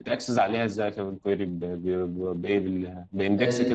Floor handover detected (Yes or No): No